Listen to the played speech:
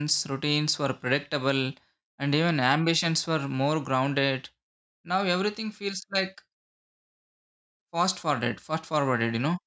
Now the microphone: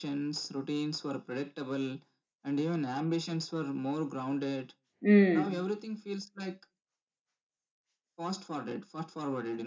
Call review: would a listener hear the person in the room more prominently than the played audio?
Yes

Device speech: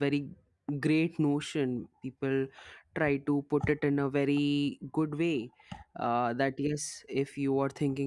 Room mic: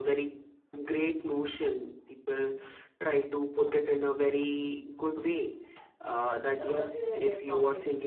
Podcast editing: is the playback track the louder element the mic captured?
Yes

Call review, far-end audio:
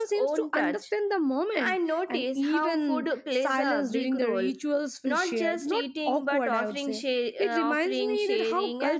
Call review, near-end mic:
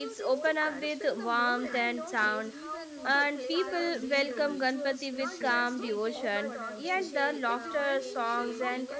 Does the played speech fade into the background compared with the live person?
Yes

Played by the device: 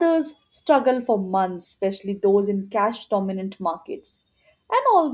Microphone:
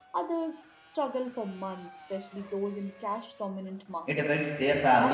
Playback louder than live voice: No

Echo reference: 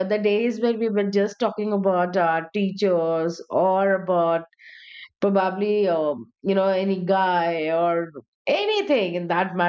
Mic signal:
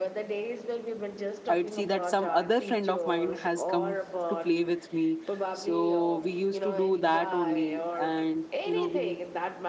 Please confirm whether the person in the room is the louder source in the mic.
Yes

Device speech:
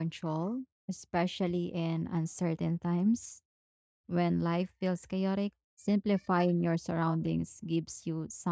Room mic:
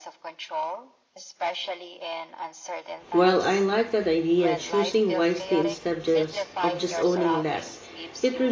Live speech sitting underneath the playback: No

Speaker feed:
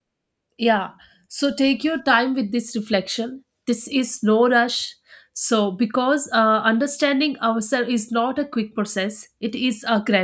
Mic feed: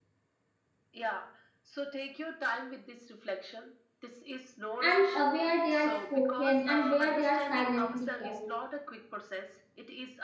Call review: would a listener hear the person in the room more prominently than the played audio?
Yes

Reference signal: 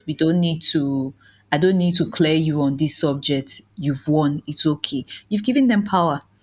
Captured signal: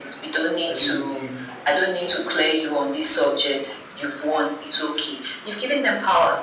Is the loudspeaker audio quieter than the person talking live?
No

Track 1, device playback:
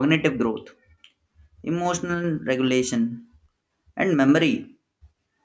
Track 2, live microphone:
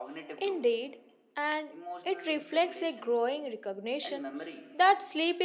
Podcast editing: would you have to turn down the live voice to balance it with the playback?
Yes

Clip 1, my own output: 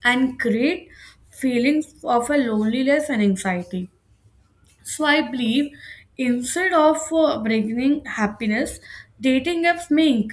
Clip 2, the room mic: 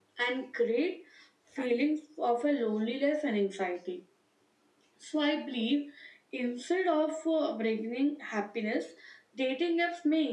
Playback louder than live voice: Yes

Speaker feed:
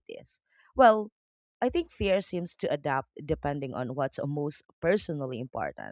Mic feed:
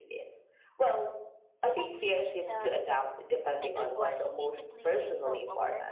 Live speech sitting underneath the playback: Yes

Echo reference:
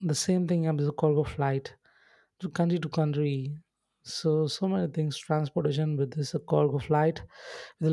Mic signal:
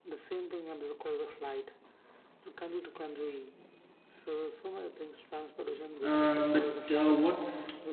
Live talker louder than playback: Yes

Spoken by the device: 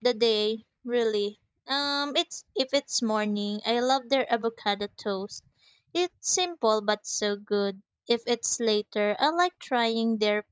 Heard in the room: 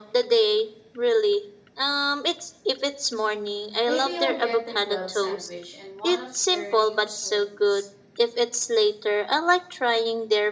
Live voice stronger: No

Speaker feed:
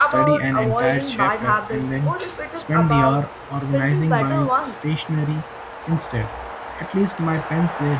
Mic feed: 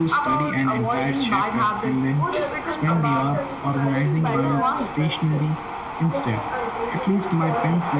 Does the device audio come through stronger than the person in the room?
Yes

